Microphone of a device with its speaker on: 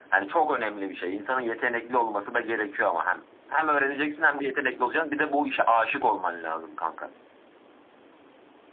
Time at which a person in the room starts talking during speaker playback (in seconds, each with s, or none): none